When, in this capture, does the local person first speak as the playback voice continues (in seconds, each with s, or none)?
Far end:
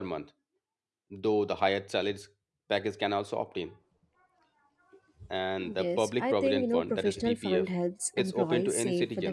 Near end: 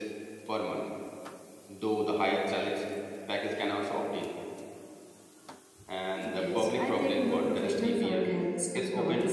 none